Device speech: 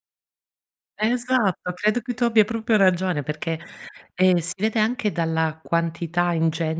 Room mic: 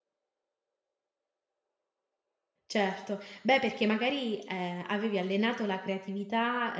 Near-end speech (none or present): present